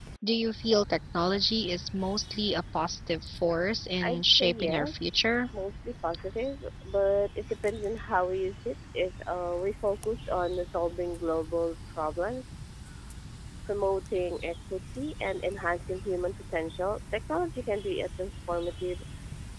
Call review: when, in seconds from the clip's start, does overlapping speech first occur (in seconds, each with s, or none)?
4.0 s